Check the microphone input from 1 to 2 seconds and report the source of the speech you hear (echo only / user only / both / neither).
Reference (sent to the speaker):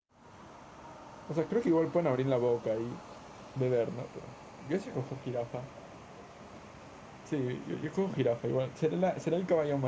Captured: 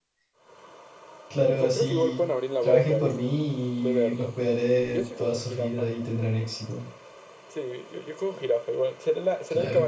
both